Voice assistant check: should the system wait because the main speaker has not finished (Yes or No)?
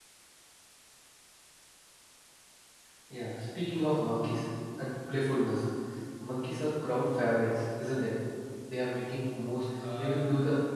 Yes